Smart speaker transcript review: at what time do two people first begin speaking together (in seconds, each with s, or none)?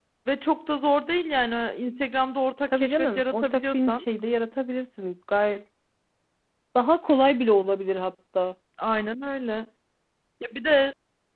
2.7 s